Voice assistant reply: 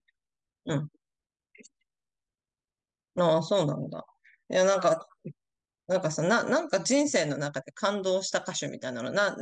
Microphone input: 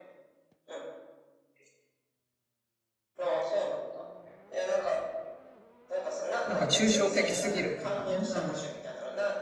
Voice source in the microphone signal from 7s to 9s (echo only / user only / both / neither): both